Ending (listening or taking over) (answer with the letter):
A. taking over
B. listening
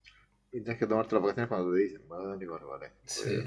A